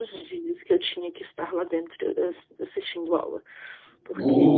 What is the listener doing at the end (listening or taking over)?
taking over